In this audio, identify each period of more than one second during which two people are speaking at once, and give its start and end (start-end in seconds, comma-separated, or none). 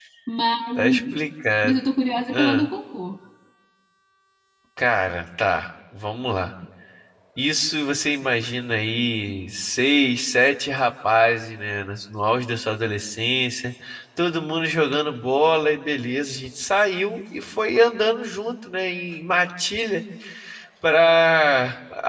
none